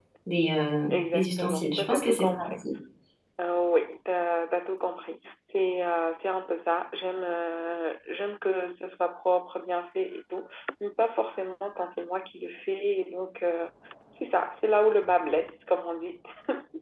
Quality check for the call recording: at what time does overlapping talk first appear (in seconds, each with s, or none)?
0.9 s